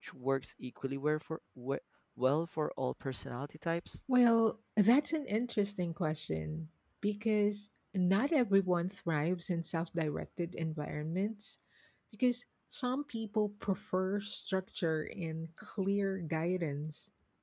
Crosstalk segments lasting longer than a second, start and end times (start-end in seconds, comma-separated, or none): none